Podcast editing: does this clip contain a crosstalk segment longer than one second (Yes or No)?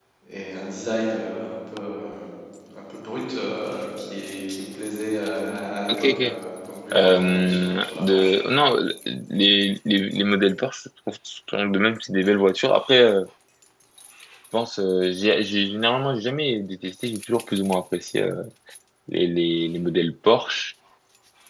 Yes